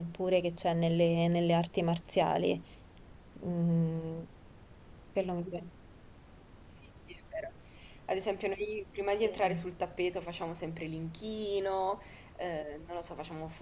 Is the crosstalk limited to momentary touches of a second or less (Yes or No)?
Yes